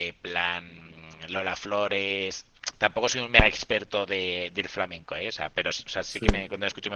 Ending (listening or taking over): listening